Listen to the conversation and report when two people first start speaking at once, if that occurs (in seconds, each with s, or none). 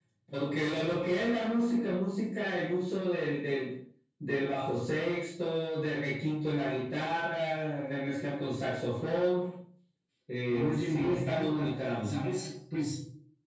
10.5 s